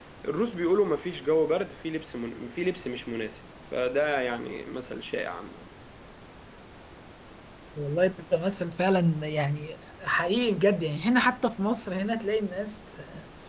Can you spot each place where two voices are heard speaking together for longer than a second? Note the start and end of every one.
none

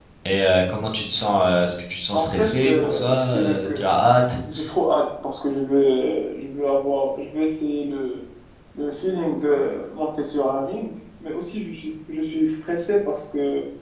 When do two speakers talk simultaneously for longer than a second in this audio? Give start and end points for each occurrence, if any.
2.1-3.8

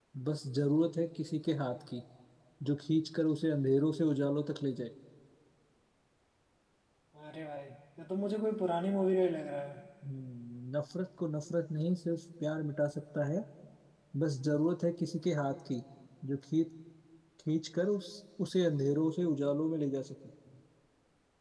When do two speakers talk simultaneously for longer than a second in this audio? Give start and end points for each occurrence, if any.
none

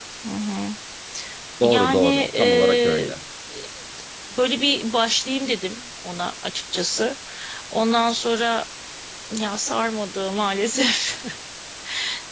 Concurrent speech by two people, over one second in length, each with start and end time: 1.6-3.1

